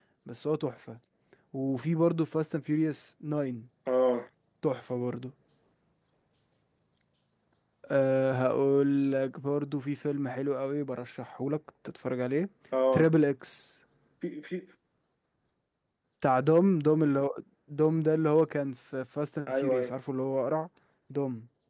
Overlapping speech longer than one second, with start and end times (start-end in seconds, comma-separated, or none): none